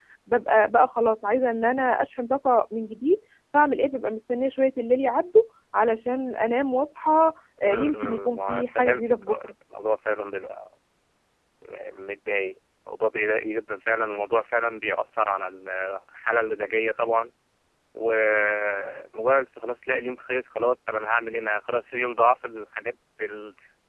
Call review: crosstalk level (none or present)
present